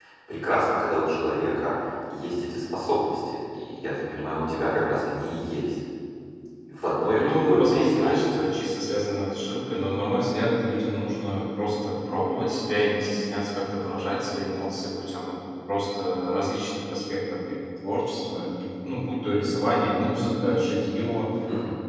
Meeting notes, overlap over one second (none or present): present